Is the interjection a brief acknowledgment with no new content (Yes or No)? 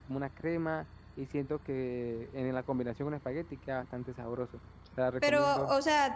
No